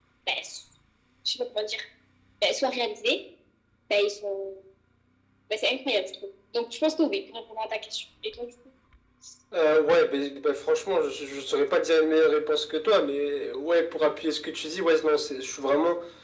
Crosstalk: none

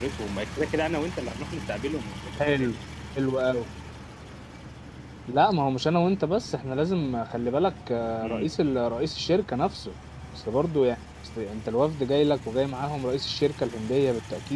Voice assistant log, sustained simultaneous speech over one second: none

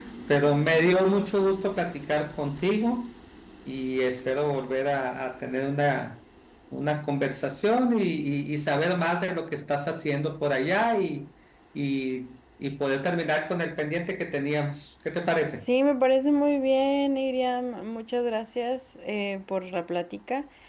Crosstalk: none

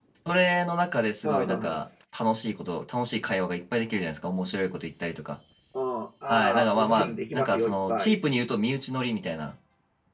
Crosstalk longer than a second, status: present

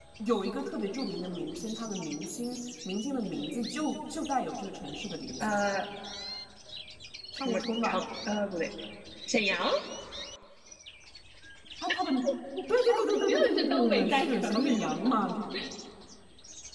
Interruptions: present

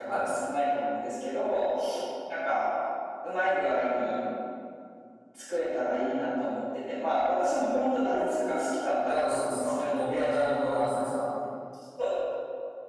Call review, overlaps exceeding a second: present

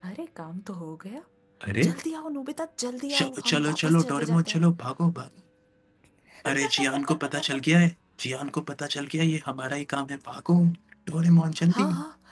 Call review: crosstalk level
present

